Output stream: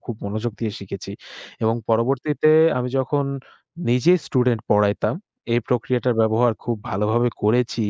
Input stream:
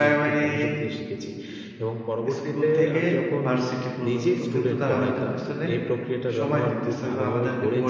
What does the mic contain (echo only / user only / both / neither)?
both